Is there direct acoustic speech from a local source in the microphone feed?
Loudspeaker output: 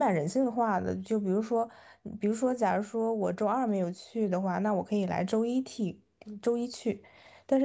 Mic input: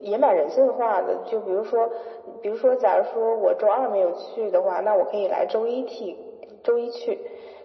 No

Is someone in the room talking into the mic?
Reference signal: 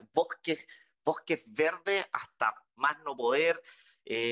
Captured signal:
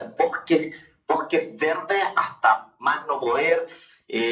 No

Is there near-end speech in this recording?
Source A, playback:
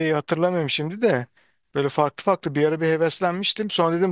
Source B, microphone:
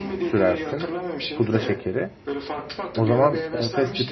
Yes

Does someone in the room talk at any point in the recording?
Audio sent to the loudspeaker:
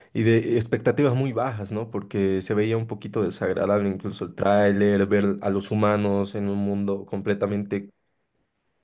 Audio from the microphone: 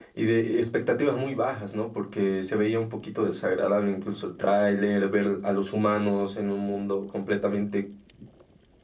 No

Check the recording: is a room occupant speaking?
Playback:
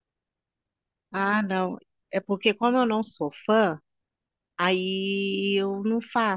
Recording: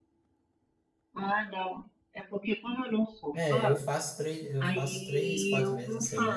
Yes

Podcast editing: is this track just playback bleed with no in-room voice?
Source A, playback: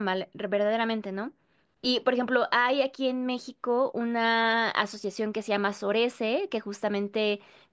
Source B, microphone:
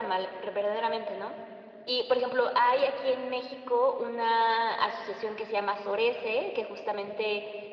Yes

